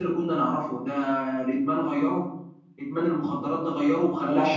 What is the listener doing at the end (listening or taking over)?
taking over